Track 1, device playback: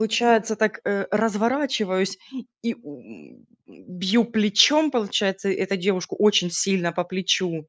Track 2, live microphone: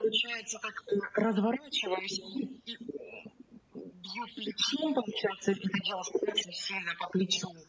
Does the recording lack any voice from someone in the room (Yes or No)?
Yes